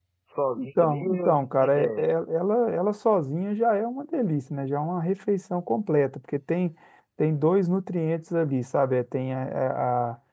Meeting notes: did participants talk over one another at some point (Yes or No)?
Yes